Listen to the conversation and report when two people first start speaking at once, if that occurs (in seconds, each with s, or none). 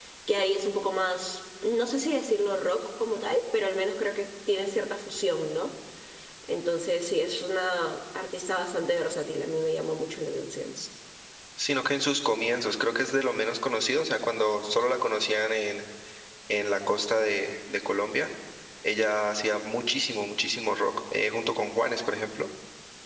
none